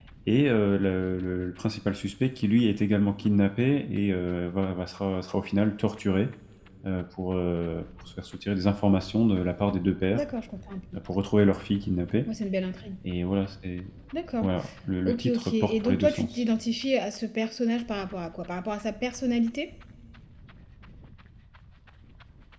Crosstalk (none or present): present